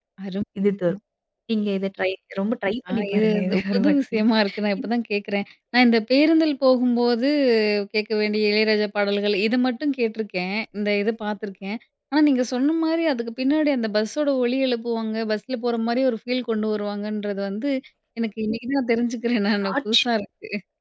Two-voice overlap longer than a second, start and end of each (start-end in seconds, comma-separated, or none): 2.9-4.2